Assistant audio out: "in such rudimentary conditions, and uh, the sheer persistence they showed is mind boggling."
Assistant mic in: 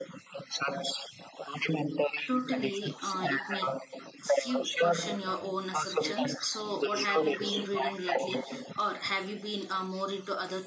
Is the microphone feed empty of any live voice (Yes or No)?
No